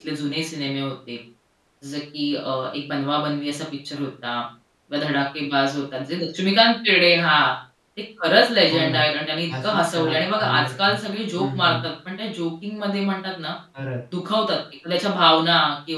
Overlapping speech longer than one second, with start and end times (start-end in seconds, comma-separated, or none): 9.6-10.9